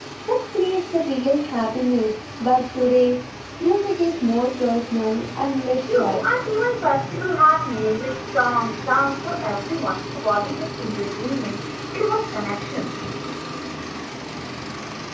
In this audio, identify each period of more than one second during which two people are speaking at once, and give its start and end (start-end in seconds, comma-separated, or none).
none